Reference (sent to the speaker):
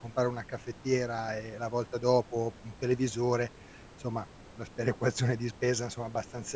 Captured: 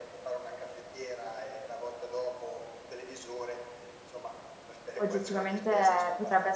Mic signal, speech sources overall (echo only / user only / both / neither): both